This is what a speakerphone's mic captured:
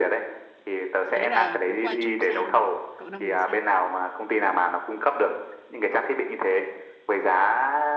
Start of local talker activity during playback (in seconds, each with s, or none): 1.1 s